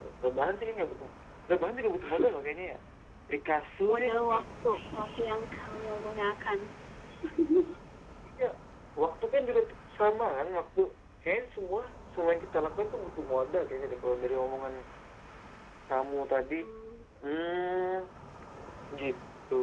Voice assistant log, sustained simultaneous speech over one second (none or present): none